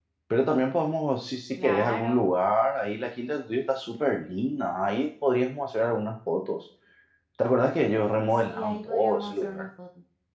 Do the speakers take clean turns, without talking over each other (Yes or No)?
No